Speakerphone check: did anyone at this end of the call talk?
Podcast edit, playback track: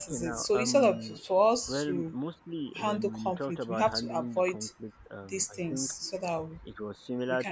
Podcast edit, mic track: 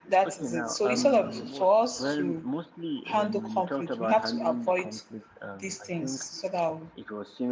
Yes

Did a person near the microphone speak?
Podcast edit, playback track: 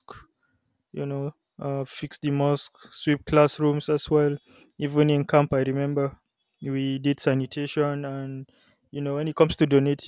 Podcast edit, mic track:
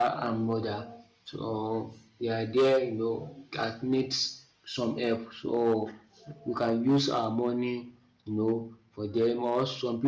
Yes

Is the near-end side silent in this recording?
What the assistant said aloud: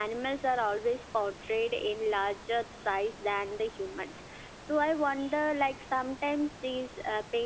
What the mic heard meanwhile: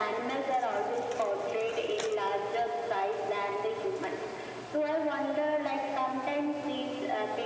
Yes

